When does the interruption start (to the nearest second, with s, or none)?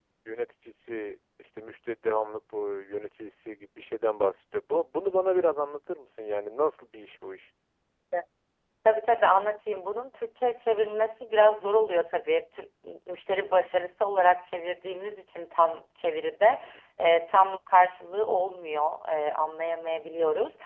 none